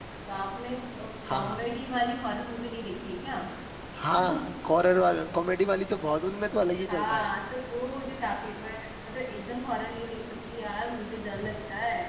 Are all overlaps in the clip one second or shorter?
Yes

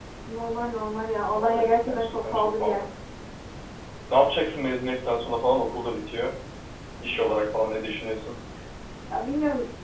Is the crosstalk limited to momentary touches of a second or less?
No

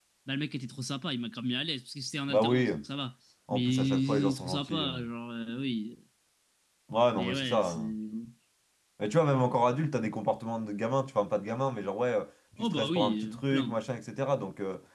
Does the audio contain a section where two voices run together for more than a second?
Yes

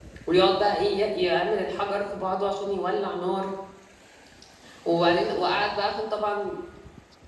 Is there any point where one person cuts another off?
No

